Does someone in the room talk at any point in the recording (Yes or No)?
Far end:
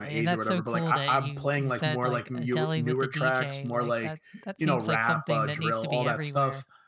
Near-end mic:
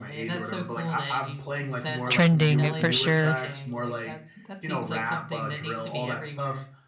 Yes